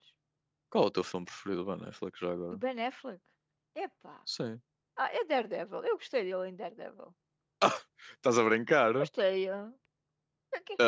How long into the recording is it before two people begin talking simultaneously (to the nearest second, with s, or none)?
none